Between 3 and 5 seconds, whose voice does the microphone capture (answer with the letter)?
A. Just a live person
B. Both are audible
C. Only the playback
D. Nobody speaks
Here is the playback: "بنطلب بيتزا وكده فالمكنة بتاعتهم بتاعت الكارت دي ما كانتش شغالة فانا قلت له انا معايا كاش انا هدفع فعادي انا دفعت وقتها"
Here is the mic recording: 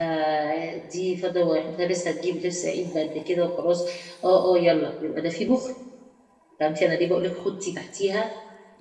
A